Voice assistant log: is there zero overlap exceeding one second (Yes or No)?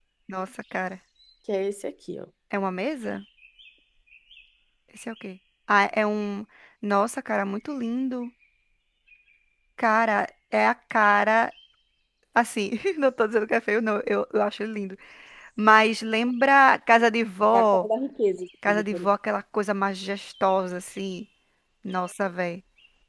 Yes